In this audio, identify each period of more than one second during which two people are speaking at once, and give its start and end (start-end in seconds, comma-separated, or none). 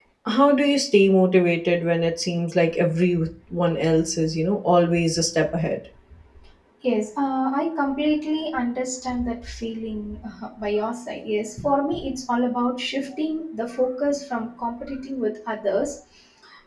none